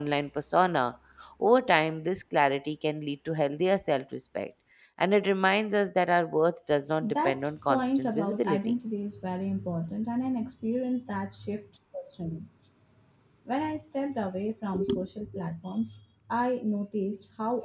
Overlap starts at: 7.0 s

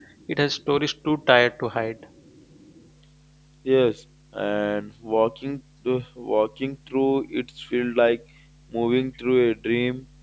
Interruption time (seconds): none

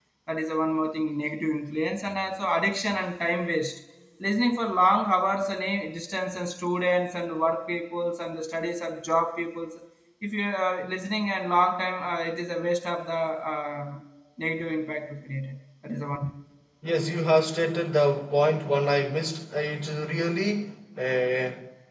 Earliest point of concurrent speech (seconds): none

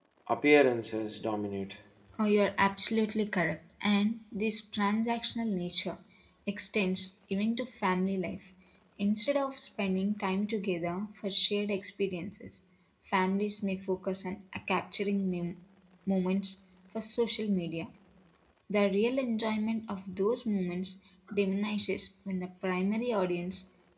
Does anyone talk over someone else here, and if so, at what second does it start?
none

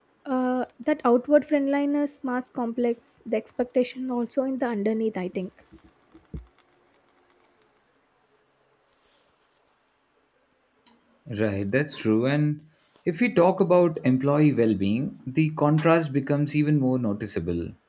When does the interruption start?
none

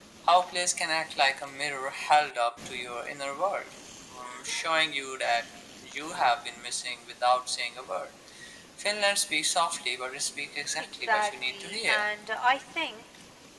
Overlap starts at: 10.8 s

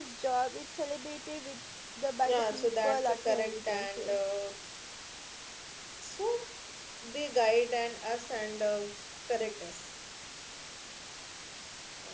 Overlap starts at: 2.2 s

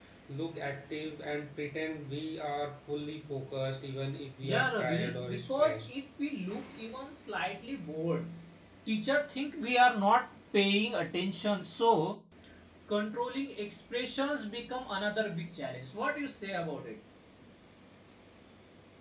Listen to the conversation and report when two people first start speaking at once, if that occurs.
4.4 s

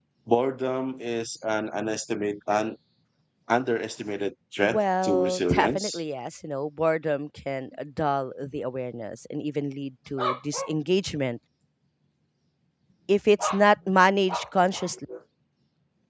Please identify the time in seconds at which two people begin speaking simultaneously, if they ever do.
4.6 s

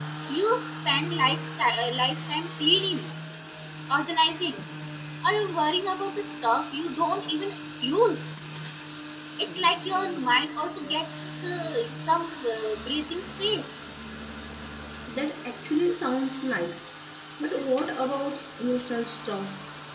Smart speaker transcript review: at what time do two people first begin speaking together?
none

